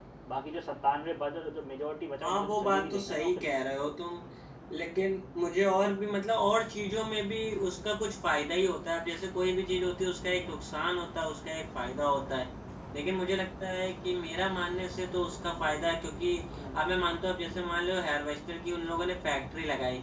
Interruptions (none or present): present